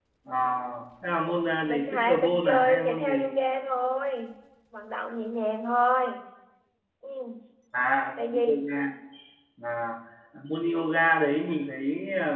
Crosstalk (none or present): present